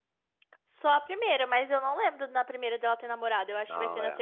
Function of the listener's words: taking over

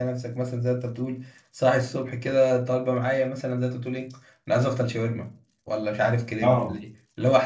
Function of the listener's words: listening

